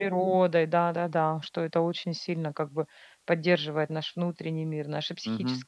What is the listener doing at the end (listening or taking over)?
taking over